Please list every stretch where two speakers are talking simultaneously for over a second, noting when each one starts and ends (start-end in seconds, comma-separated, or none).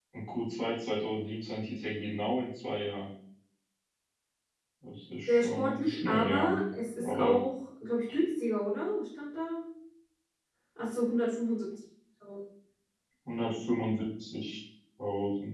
5.3-6.6